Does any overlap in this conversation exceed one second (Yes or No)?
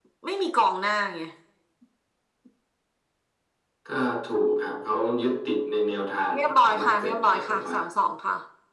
Yes